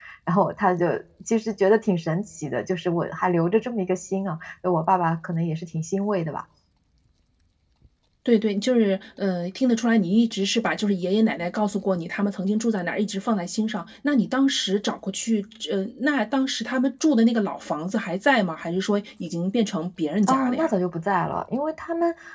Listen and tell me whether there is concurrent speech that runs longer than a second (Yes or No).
No